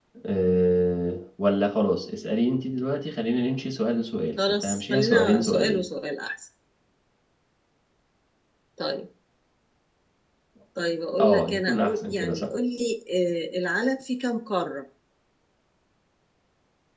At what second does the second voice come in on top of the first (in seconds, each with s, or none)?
4.5 s